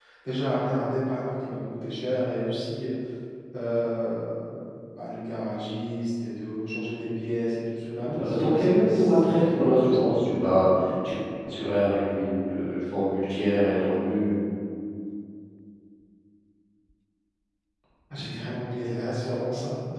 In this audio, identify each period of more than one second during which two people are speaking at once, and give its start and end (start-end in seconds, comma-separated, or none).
8.0-10.1